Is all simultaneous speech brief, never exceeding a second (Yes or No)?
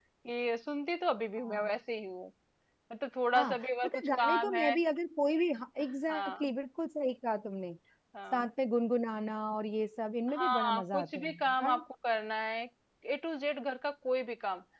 No